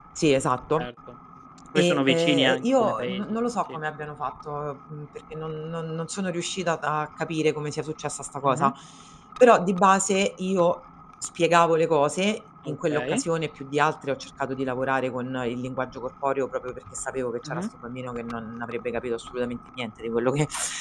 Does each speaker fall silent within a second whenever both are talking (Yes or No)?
No